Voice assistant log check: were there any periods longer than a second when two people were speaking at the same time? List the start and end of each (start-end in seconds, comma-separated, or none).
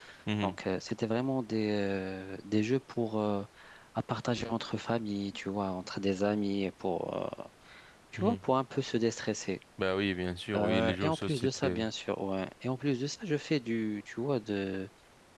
10.5-11.9